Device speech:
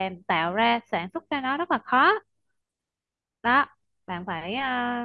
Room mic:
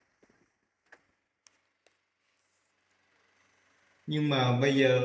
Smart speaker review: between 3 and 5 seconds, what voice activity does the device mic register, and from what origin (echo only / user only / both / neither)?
user only